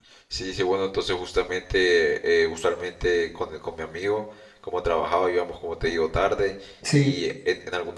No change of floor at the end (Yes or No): Yes